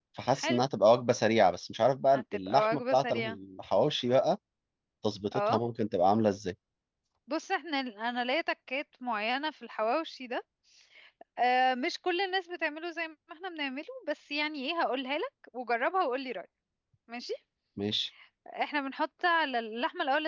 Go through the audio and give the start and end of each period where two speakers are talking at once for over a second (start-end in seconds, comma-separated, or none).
2.2-3.4